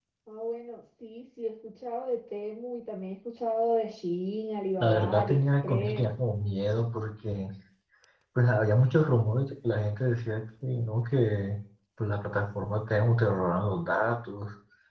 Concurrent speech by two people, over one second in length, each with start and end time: 4.8-6.0

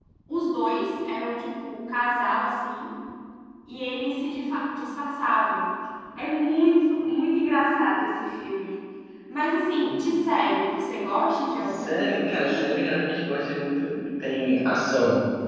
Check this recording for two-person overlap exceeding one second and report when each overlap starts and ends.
11.6-13.0

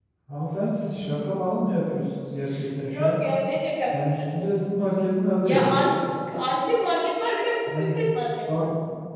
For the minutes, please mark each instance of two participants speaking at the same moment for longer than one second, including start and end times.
none

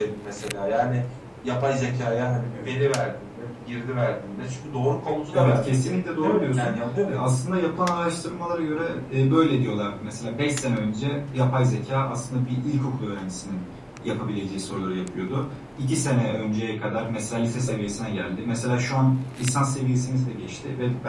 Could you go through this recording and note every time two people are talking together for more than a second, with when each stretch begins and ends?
5.3-7.2

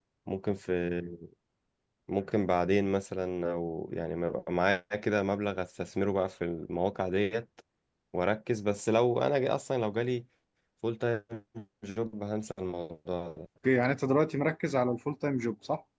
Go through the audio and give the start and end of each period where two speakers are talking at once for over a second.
none

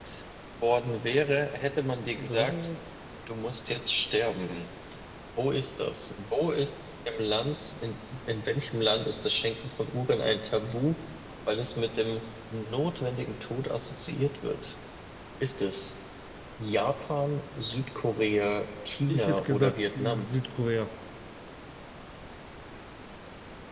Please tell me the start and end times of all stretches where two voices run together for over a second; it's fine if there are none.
19.1-20.3

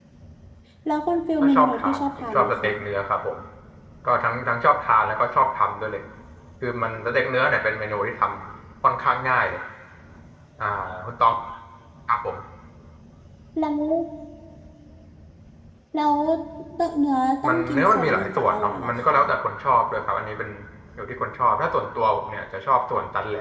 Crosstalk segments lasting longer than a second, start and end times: 1.4-2.7, 17.5-19.1

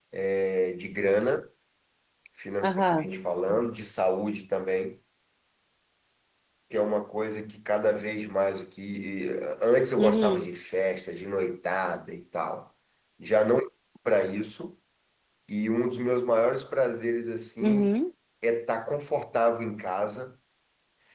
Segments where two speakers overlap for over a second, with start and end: none

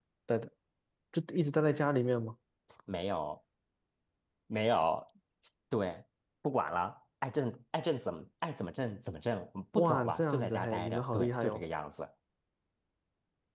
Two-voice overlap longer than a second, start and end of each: 9.8-11.6

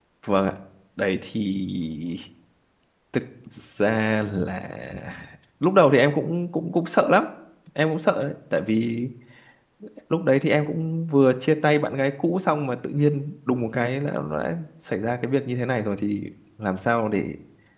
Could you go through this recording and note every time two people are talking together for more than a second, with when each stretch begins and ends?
none

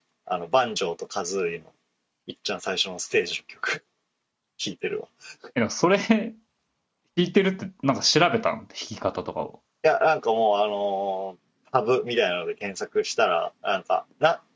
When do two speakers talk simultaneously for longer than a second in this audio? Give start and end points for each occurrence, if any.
none

